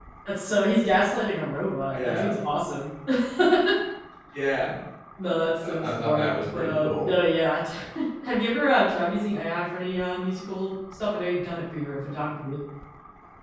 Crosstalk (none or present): present